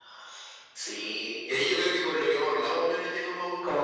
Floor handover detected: Yes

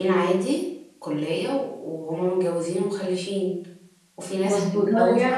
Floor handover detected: Yes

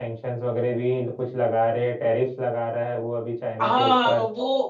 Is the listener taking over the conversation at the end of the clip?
Yes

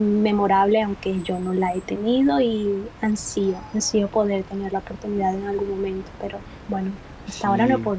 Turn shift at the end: Yes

